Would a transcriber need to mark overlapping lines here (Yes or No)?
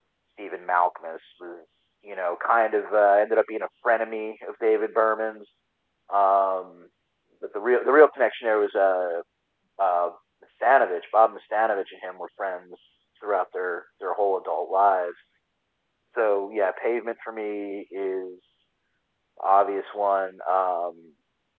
No